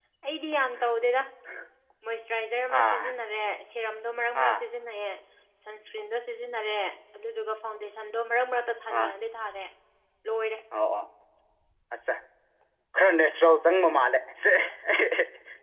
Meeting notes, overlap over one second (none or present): none